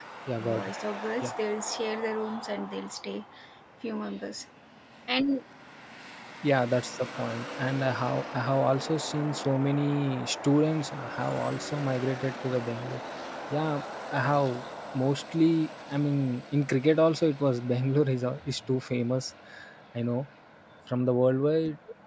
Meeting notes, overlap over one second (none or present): none